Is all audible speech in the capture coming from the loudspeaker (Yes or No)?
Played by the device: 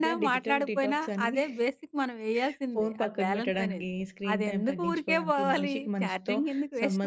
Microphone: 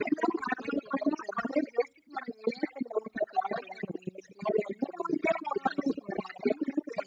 Yes